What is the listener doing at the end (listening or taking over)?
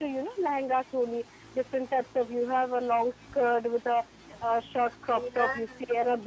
listening